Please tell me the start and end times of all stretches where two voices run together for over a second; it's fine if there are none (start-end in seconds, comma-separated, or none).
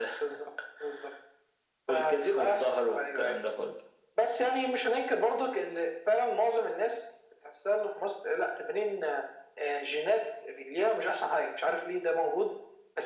1.9-3.3